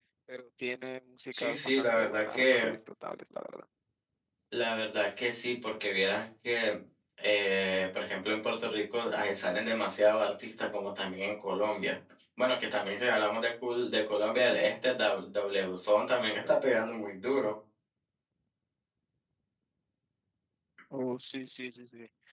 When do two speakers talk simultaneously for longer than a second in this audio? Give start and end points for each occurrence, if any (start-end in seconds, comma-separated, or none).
1.3-2.7